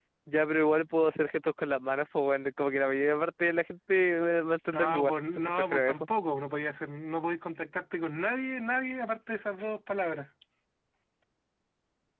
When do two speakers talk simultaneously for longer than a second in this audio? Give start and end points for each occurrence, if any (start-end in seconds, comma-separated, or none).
4.7-6.1